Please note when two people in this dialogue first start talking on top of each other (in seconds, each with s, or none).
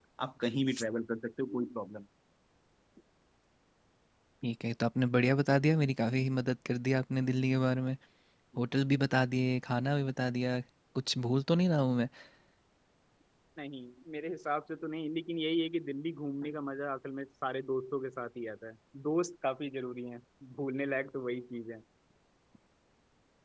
none